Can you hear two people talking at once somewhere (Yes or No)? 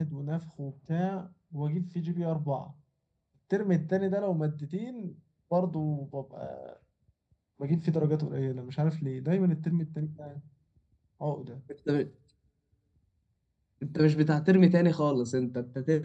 No